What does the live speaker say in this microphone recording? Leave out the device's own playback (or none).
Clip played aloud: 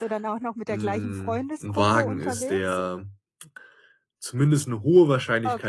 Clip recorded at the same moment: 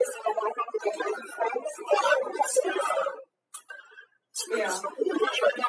Ja.